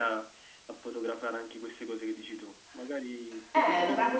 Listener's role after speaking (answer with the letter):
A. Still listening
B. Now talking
B